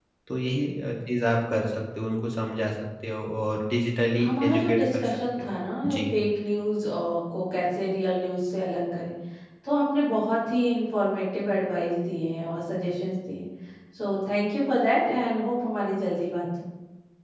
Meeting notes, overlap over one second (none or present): present